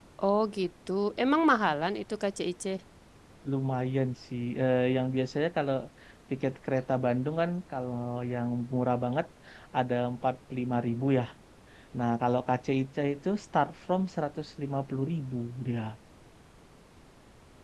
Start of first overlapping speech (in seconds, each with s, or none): none